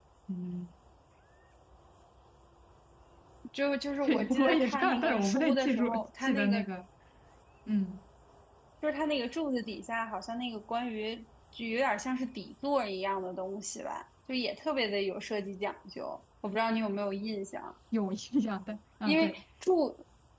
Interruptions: present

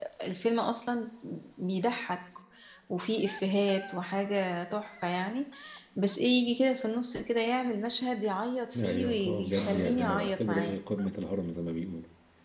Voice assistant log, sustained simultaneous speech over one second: present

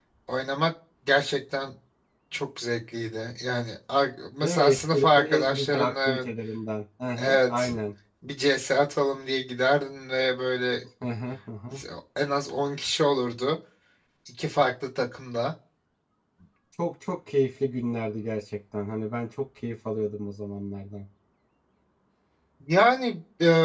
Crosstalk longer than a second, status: present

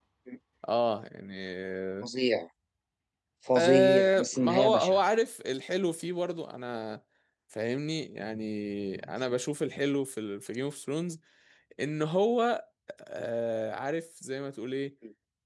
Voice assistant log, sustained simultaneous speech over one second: present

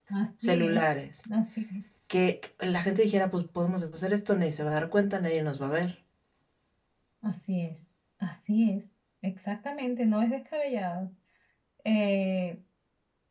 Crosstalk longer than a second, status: none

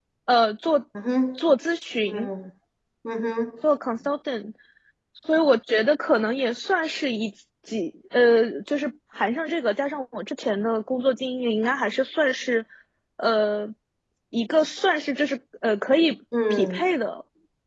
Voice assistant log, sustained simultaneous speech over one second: none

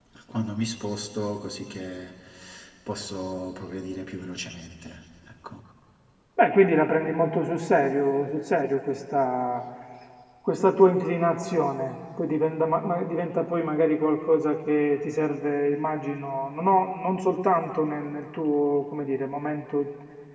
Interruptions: none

